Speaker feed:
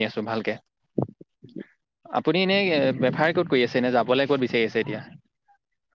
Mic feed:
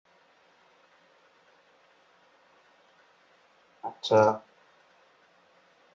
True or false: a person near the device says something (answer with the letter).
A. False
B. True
B